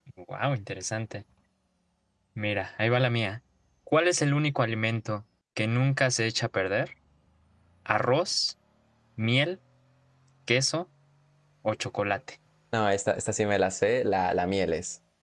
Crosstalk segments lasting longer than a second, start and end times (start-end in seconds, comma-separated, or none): none